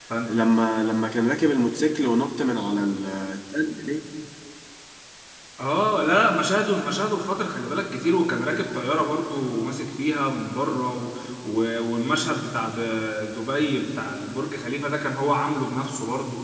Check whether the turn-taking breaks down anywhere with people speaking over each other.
No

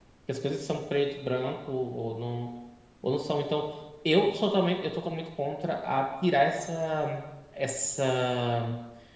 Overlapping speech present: No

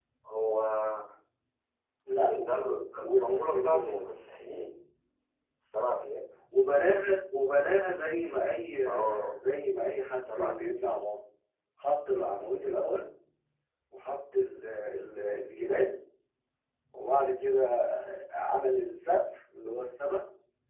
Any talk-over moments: Yes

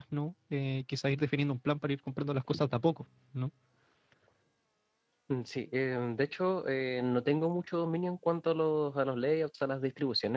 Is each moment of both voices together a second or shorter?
Yes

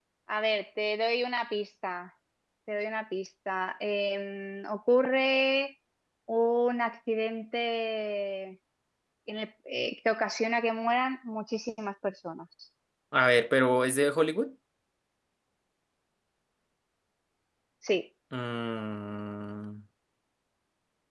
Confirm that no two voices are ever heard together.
Yes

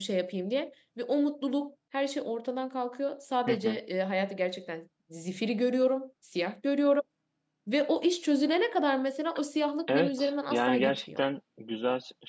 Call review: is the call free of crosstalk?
No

